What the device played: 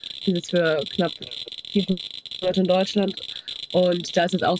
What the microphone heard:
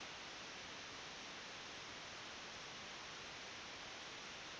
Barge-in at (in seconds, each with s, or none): none